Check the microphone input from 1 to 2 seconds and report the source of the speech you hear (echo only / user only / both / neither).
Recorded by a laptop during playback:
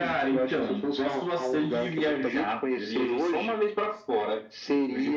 echo only